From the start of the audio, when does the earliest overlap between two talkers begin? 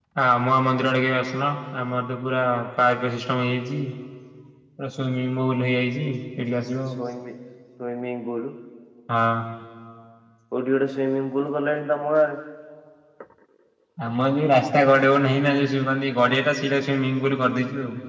none

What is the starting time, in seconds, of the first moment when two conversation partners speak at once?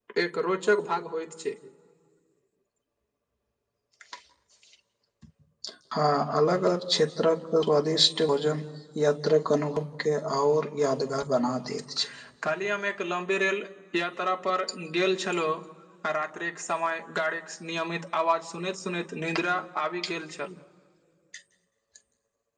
none

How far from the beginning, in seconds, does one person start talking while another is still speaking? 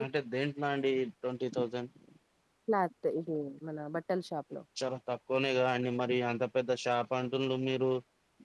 none

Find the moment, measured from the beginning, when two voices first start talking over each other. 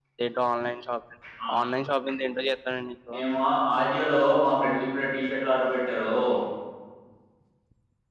none

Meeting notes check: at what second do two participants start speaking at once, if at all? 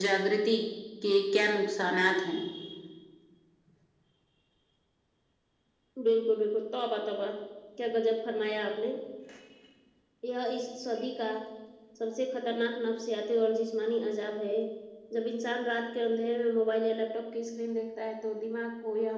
none

